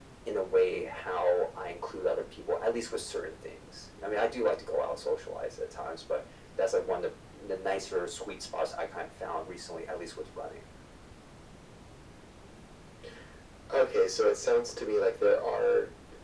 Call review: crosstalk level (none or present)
none